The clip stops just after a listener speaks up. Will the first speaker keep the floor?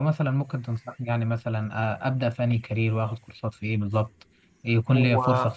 Yes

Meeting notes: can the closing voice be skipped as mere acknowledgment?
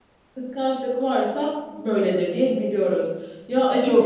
No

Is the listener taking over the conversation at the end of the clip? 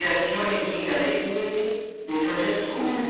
No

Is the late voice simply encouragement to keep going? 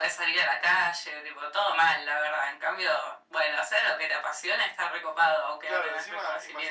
No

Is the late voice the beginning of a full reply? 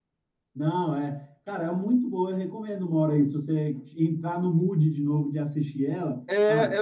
Yes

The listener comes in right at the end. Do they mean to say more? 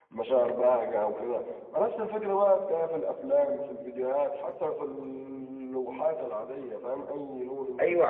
Yes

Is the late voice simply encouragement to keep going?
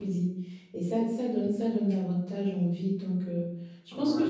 Yes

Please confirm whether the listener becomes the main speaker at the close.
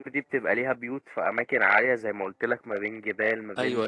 No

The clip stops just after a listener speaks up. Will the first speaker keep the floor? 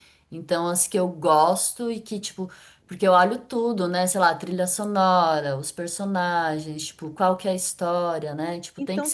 No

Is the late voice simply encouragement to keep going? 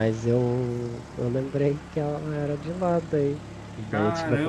Yes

